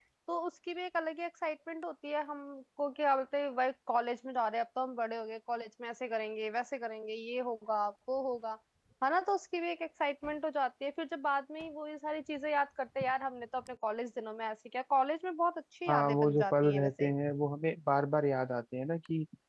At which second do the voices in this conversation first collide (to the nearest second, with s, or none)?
16 s